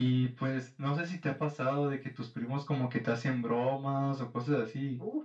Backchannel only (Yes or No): No